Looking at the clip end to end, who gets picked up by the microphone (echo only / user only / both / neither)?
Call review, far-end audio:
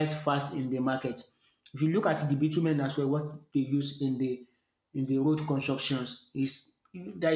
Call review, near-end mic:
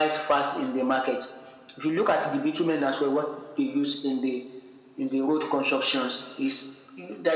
echo only